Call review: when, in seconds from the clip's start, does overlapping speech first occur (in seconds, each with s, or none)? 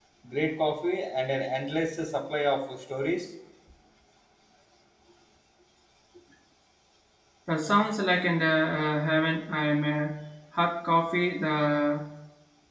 none